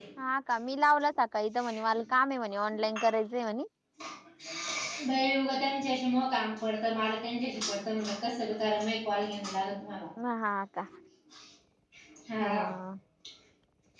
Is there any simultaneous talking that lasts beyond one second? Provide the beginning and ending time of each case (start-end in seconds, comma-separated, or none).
none